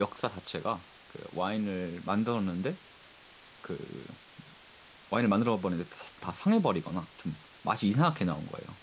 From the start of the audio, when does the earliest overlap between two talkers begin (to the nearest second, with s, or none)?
none